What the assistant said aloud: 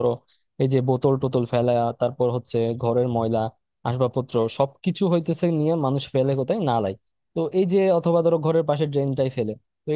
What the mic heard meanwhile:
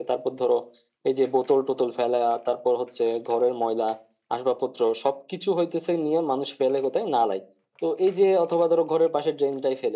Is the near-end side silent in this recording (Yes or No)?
Yes